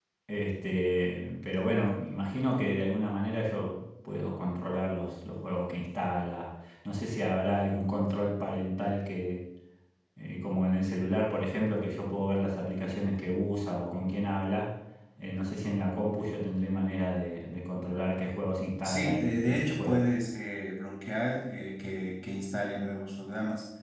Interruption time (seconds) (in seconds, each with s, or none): 18.8 s